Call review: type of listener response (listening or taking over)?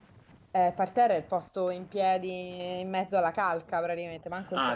taking over